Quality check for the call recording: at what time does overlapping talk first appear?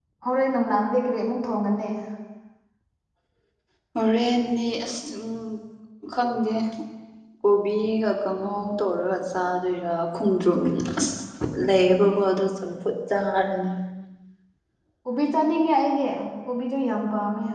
none

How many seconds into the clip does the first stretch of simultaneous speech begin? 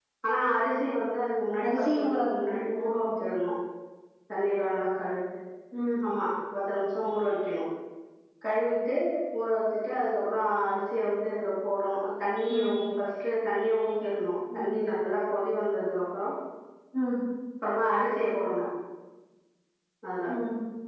1.6 s

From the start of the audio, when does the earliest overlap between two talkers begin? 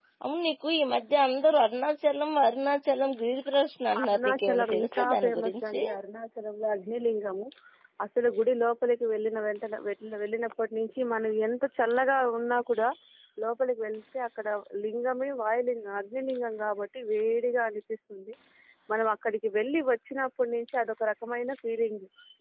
3.9 s

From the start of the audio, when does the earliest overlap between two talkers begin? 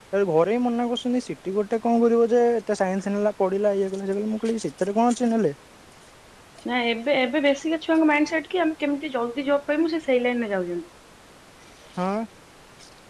none

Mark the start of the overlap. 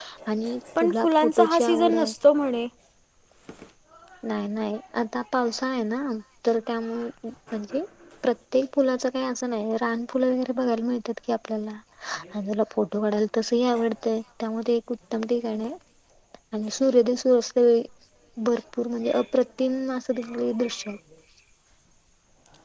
0.8 s

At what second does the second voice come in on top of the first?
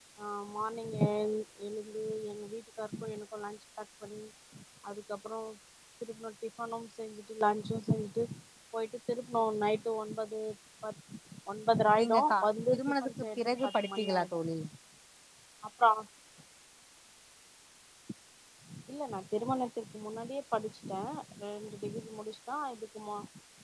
12.0 s

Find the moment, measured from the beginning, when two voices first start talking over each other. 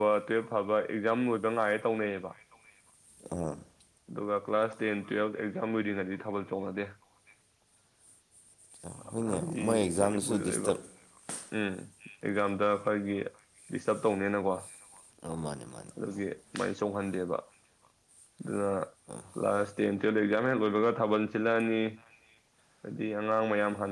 9.2 s

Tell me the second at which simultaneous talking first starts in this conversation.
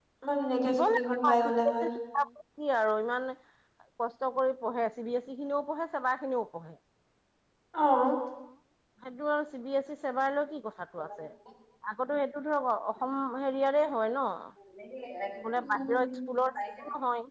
0.7 s

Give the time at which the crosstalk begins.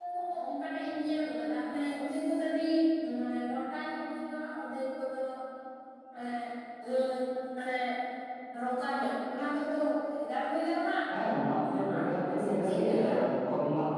11.6 s

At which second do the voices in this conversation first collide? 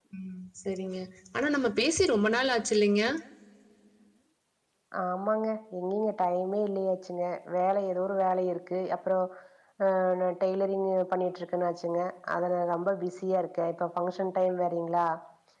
none

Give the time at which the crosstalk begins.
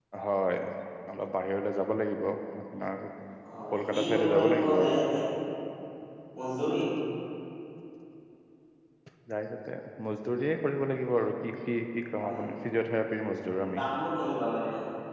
3.8 s

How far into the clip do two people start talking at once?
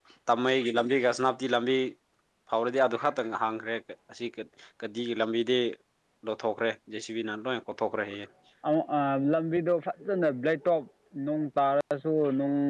none

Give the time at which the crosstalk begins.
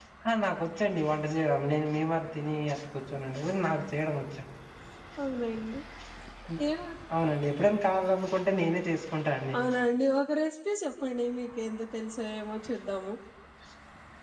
none

